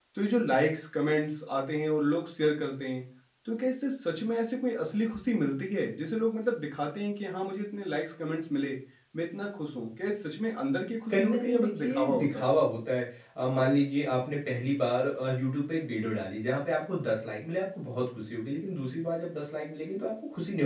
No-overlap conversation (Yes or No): No